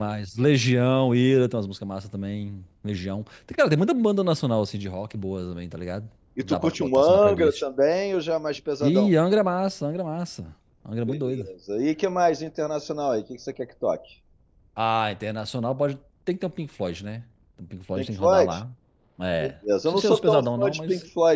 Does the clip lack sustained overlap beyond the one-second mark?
No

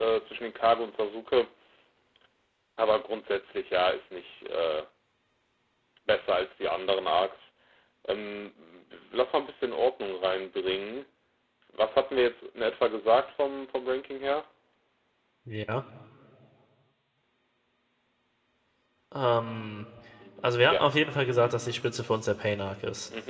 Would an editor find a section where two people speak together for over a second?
No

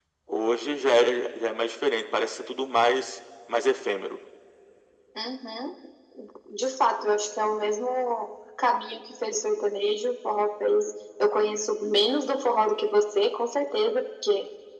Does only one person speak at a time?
Yes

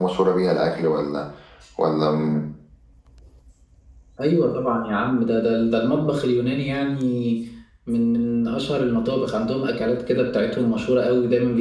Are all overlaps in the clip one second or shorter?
Yes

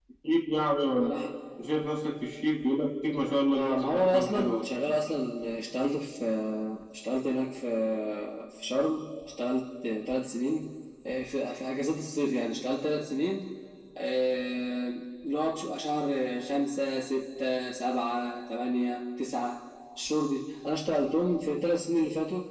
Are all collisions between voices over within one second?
No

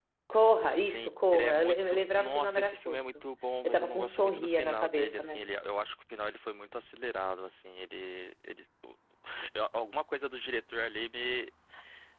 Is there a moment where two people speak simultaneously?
Yes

